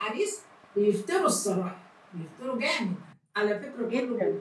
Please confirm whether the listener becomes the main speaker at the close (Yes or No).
No